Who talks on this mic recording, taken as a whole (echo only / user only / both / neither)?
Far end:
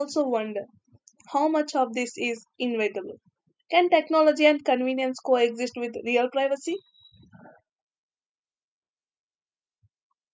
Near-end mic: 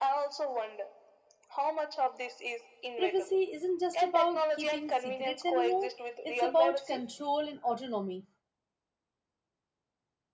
both